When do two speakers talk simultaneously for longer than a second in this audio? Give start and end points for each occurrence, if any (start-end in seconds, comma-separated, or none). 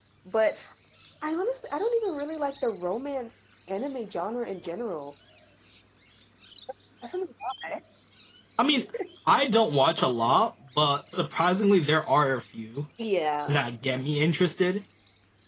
none